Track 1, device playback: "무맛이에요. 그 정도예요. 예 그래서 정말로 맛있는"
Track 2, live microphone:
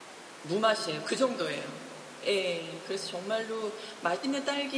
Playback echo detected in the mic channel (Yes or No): Yes